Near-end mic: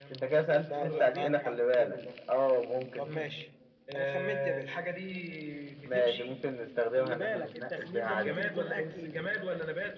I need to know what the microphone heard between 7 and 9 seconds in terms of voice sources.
both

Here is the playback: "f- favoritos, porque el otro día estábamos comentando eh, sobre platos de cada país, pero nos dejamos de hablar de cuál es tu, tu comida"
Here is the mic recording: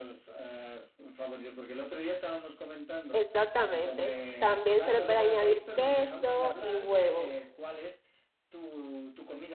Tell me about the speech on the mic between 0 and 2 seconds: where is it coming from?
echo only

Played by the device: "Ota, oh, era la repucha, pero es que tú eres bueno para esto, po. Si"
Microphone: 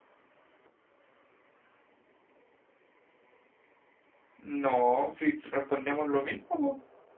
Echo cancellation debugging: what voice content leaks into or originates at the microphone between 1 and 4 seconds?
neither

